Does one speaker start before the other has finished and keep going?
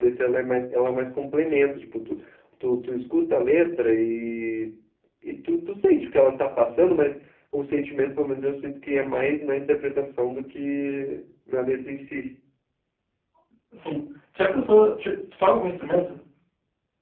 No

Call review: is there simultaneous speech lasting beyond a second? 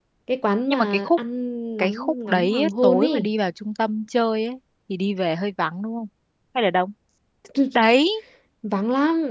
Yes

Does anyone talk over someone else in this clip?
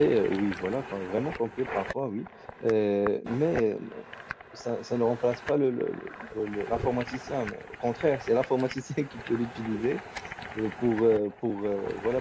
No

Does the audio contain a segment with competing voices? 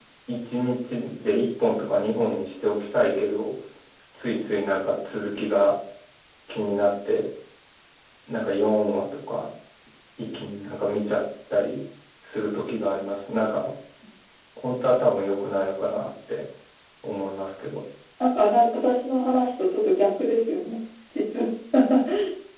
No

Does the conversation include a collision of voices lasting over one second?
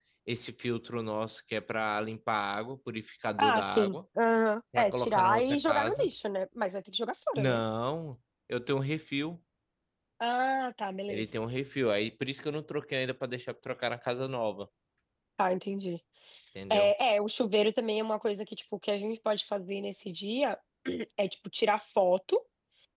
Yes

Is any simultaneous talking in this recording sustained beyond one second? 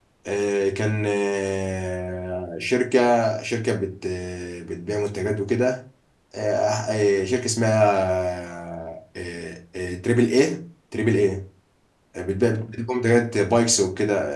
No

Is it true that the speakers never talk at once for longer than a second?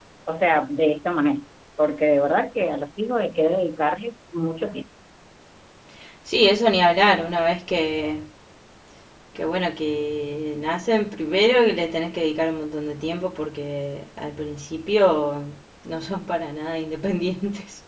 Yes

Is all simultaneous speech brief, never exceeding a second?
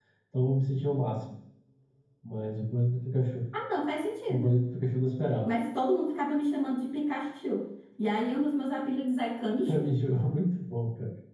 Yes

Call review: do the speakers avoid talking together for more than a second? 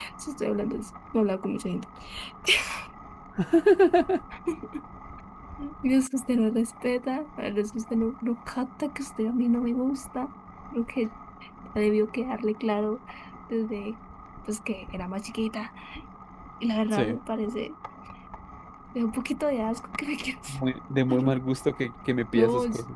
Yes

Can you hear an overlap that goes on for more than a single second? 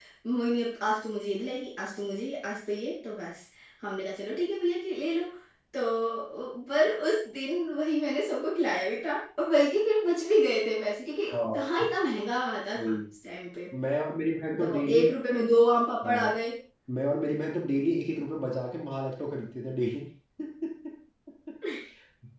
No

